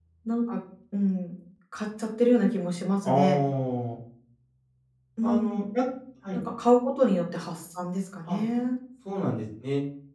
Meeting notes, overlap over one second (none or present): none